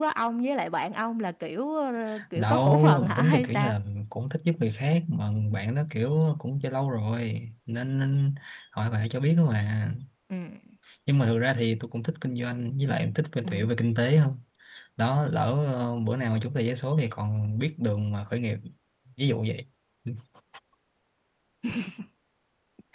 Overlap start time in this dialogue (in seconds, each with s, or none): 2.4 s